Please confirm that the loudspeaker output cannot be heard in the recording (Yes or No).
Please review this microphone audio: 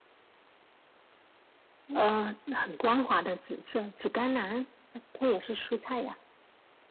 No